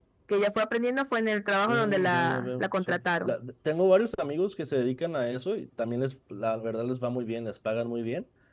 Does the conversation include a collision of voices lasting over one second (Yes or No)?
Yes